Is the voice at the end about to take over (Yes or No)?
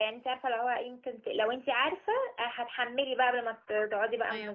Yes